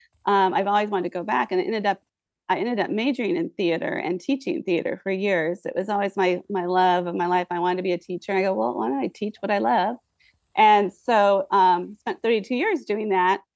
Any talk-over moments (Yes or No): No